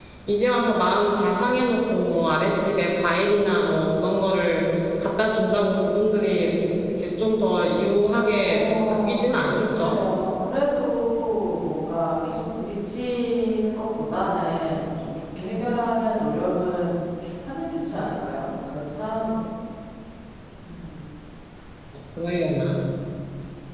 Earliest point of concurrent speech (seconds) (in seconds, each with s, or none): 8.4 s